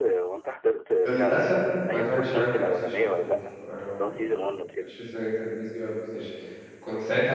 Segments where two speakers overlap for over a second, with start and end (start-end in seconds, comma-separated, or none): 1.9-3.3